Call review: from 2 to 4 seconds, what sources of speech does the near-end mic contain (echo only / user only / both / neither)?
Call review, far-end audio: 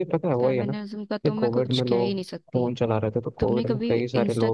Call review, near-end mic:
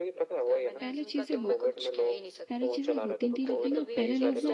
both